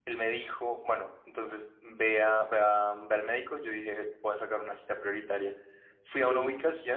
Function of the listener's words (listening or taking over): listening